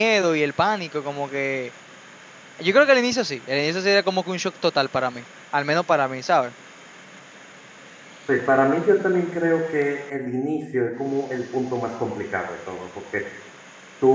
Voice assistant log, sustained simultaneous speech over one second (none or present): none